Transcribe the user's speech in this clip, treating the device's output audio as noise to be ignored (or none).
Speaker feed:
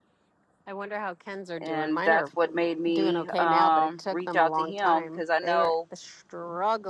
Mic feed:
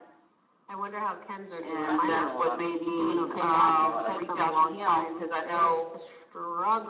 I do know a lot of shit. Do I do know a lot of information?